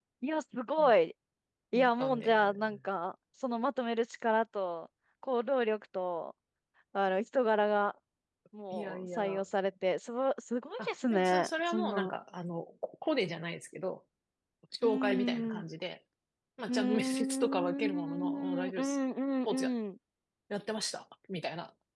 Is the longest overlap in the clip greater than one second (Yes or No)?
Yes